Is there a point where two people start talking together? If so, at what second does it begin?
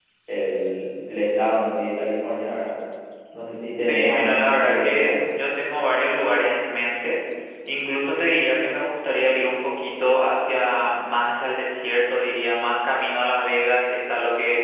3.8 s

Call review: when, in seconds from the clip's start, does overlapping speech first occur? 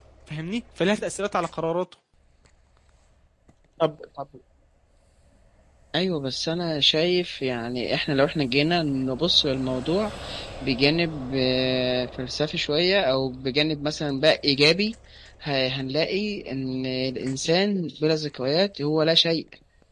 none

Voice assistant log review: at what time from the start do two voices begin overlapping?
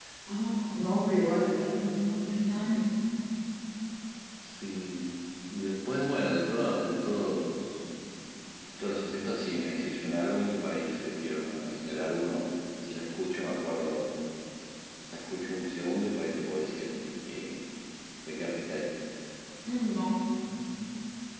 none

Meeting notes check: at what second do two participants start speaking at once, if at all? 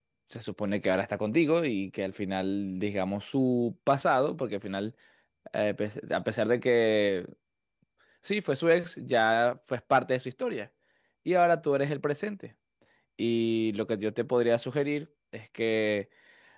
none

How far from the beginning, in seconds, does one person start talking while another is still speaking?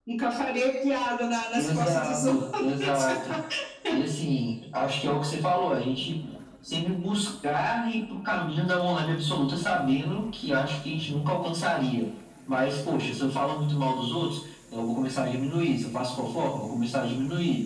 1.6 s

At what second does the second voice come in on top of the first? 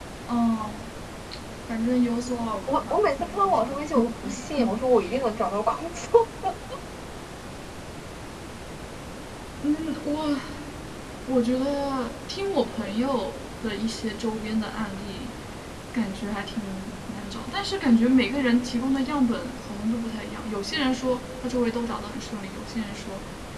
2.7 s

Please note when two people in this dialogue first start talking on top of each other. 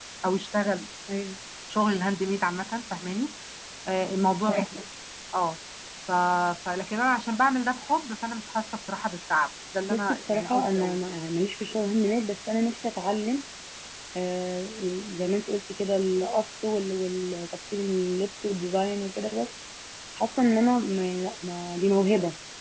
9.9 s

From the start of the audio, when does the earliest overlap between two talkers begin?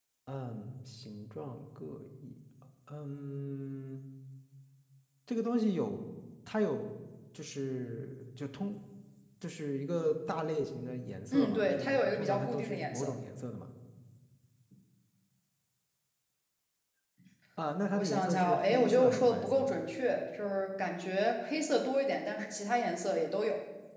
11.3 s

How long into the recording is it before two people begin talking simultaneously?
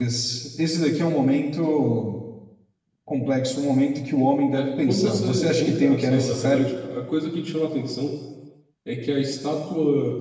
4.5 s

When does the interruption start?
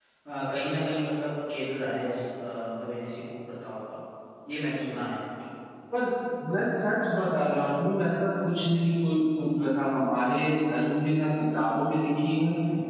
none

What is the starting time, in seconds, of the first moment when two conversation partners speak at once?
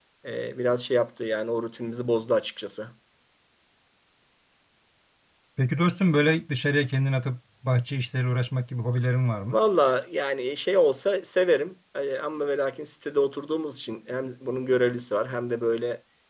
none

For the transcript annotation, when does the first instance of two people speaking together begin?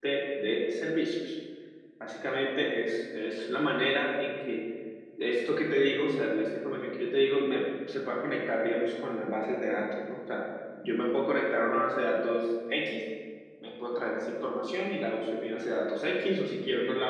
none

